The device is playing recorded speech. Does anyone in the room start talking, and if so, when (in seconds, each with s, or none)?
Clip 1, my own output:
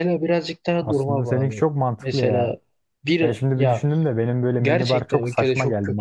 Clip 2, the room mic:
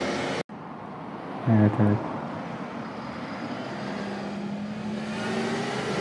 1.5 s